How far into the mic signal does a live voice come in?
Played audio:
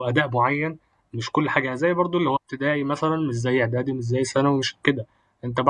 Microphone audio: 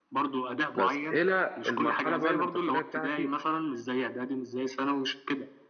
1 s

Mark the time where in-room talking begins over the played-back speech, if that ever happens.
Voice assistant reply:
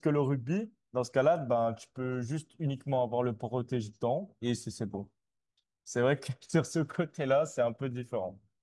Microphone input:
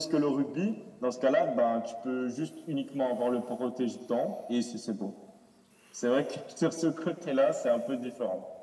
none

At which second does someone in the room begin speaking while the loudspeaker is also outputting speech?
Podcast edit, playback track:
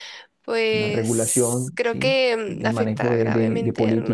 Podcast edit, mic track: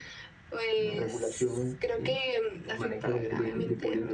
none

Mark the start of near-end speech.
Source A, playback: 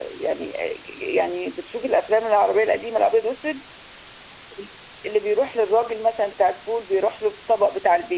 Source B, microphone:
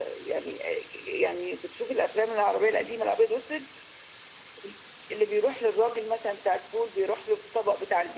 none

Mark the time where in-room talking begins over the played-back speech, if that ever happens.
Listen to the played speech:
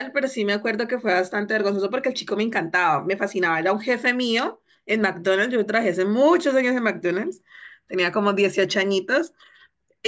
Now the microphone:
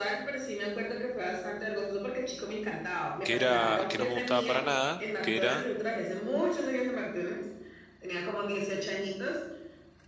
3 s

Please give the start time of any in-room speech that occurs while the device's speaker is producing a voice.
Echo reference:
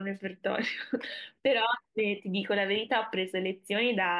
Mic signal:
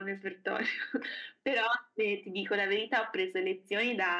none

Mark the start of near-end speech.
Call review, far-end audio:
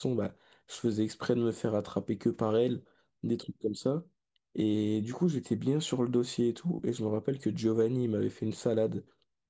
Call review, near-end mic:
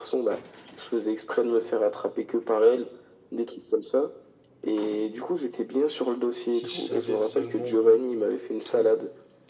6 s

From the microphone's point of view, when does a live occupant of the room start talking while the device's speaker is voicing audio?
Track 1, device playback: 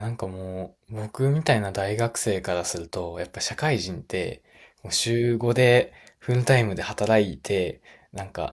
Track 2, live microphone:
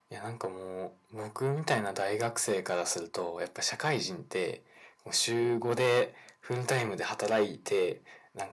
none

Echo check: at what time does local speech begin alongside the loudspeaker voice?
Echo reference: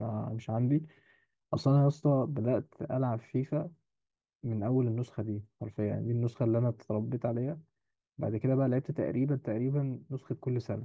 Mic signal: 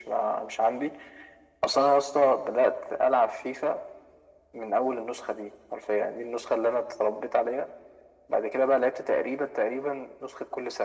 none

